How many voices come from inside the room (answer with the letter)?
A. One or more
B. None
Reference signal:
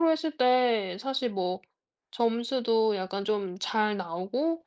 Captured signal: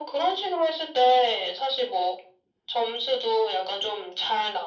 B